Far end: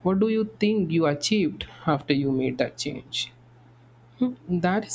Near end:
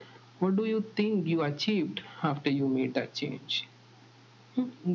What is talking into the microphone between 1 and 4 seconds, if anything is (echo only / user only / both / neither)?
echo only